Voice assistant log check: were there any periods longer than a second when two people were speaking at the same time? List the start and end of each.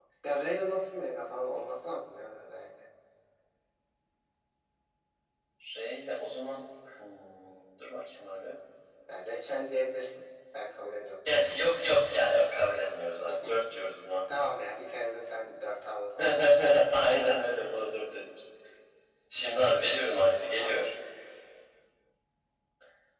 none

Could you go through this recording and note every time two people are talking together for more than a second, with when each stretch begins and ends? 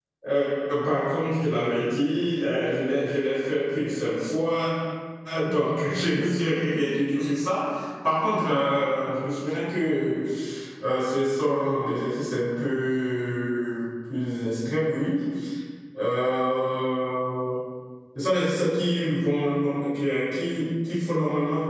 none

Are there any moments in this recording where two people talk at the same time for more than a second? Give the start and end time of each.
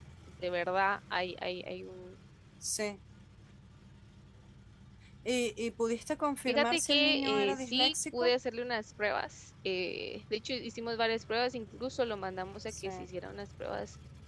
6.5-8.3

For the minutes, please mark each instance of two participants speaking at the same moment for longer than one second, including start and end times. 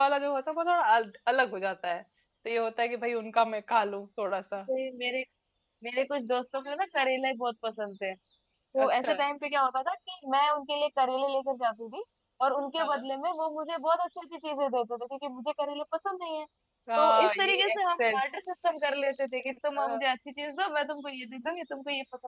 17.0-18.2

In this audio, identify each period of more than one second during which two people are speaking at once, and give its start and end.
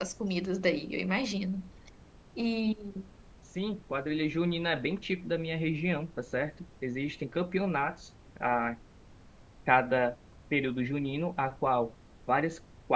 none

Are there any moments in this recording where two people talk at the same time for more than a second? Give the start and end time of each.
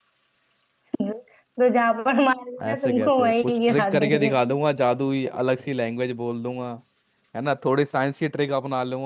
2.6-4.3

